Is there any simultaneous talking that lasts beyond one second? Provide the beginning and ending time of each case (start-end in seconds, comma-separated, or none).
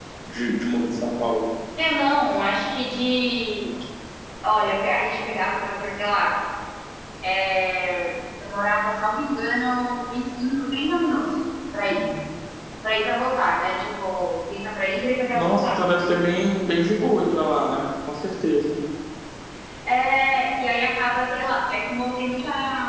none